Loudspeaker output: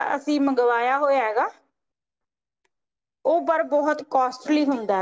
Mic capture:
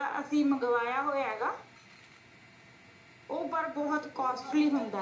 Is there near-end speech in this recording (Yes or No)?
Yes